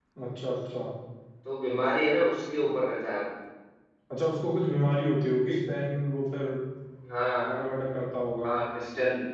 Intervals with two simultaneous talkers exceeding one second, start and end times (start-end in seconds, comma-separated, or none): none